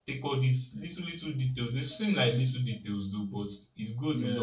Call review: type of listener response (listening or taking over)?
listening